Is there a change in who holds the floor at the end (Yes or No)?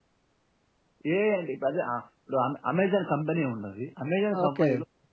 No